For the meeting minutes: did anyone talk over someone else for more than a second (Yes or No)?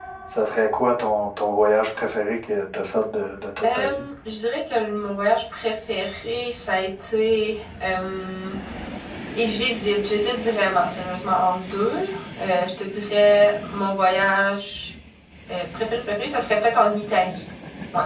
No